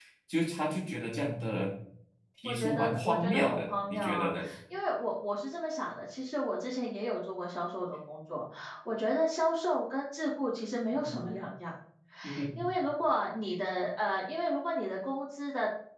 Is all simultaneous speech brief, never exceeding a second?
No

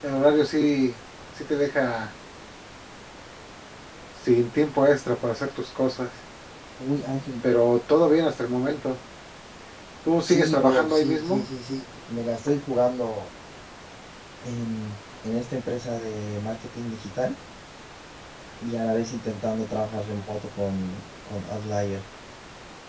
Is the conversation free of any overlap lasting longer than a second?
No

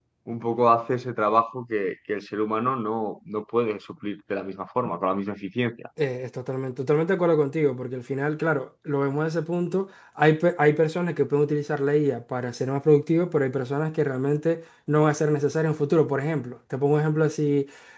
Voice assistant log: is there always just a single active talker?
Yes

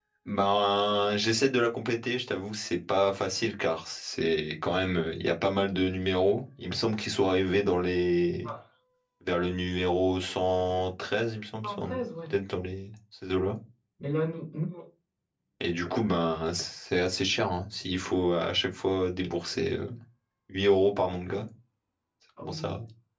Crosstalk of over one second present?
No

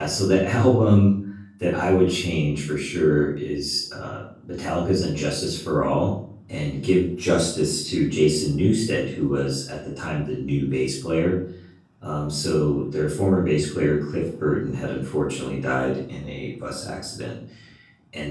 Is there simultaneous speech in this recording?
No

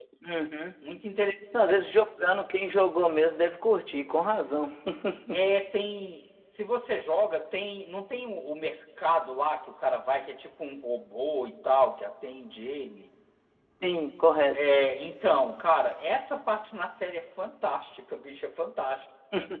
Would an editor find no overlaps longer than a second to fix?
Yes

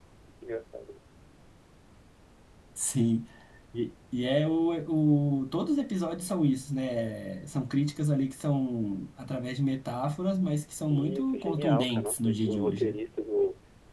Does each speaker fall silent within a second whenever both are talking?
No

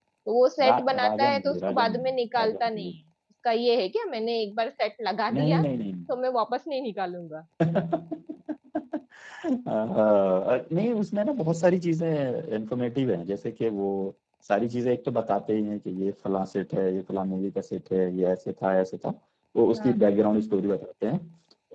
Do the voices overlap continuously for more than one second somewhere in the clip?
Yes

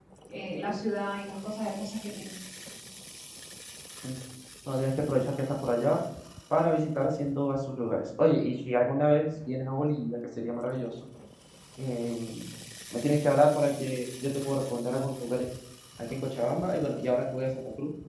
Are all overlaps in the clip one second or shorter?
Yes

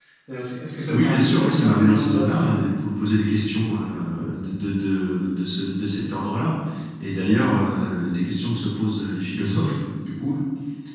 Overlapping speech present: Yes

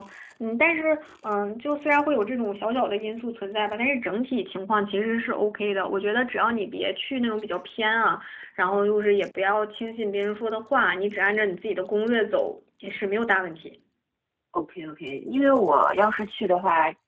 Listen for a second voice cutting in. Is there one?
No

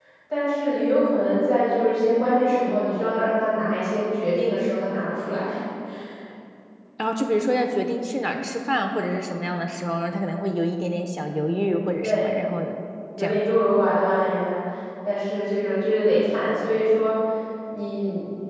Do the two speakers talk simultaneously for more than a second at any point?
No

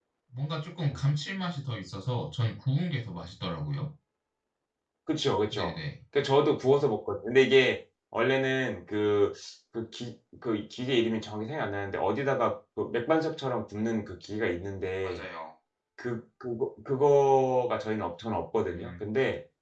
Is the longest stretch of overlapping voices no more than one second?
Yes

